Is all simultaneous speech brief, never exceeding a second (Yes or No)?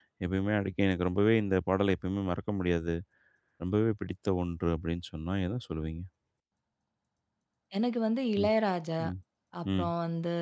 Yes